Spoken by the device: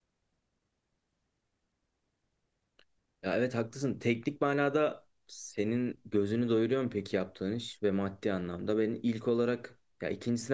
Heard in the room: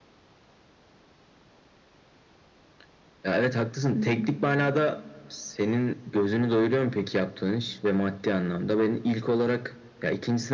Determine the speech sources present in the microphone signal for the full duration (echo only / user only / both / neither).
both